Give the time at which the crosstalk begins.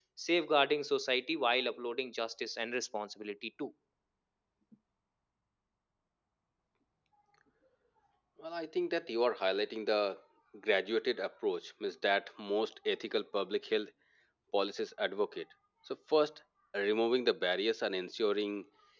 none

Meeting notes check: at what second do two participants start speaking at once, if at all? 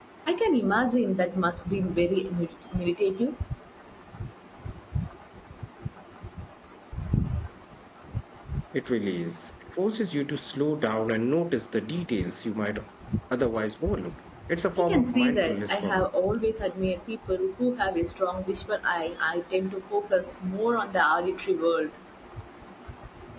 14.8 s

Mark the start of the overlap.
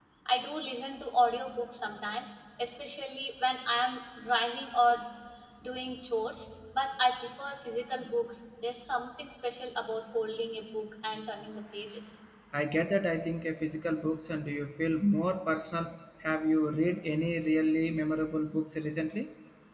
none

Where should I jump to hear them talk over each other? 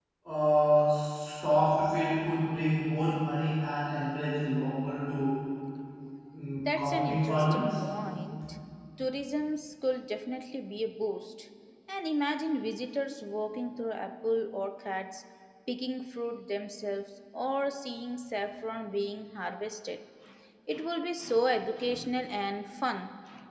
6.6 s

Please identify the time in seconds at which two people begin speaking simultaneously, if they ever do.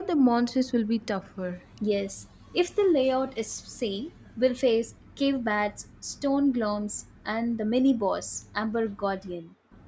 none

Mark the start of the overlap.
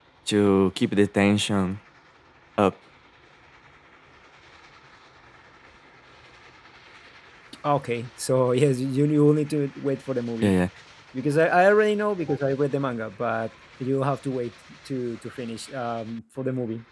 none

